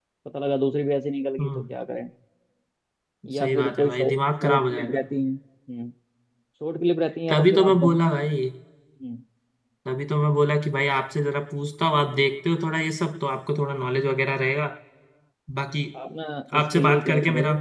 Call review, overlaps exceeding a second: present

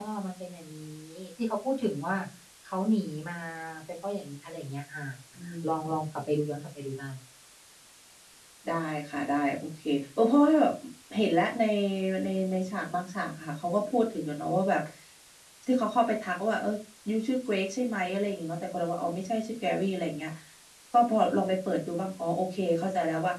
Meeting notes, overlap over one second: none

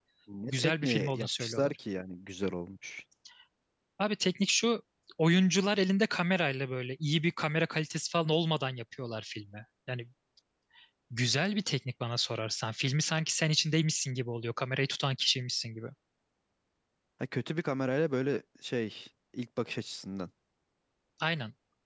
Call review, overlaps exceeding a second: present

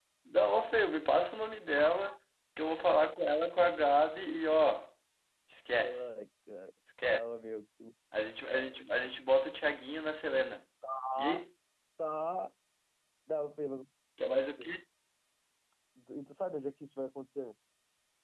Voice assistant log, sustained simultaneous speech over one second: none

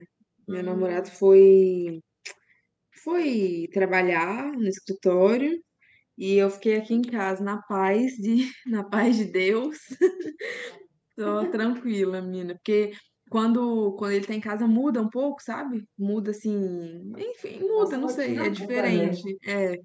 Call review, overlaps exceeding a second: present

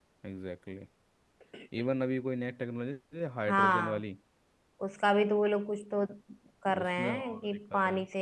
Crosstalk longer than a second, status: present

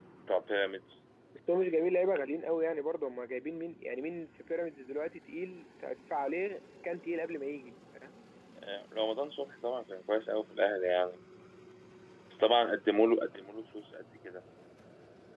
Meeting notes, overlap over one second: none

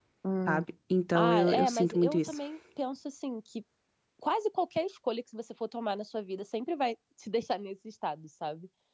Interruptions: present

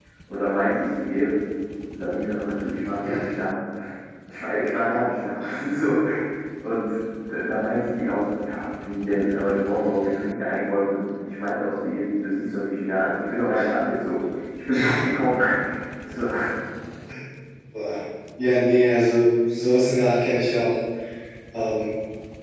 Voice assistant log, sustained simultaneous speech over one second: none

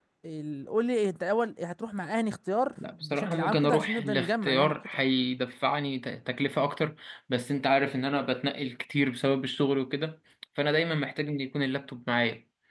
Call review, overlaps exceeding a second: present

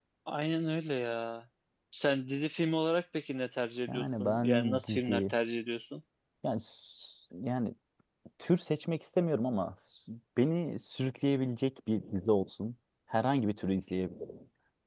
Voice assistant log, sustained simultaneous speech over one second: present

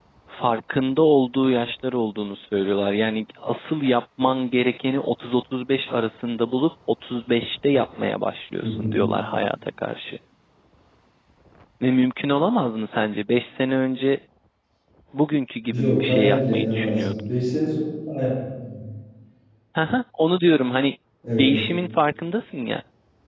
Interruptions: present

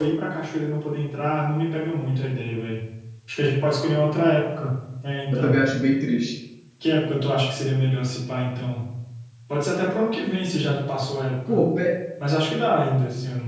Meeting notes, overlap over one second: none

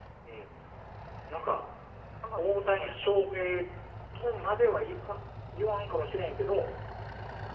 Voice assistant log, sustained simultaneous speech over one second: present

